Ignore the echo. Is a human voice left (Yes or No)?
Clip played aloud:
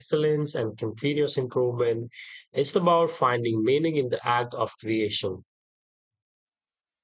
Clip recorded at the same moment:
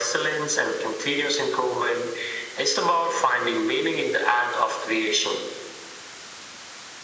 No